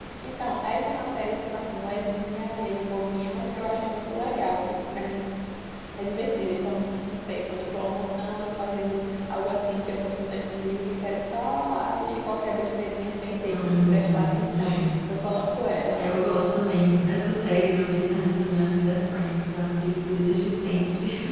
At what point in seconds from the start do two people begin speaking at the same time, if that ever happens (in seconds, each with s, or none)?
13.5 s